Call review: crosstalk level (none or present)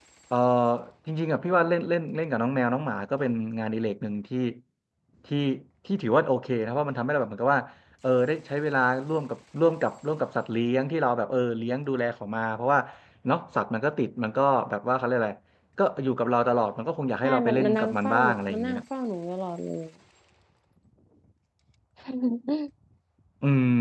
present